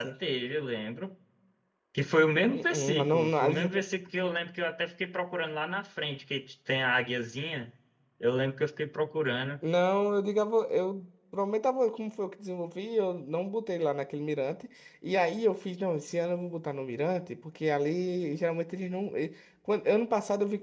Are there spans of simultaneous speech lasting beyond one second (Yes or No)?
Yes